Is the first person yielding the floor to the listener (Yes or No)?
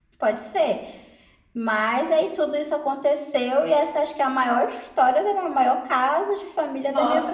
Yes